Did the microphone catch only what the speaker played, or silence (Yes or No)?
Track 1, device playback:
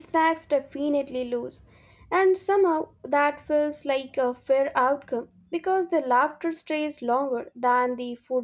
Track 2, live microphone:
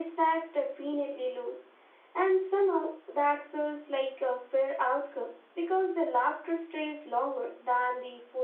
Yes